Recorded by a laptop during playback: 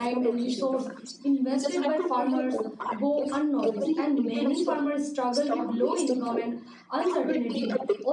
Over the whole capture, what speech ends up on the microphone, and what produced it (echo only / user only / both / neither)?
both